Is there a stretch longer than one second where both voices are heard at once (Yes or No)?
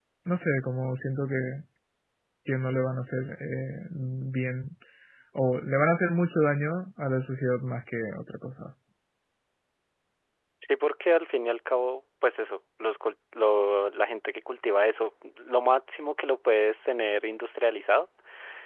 No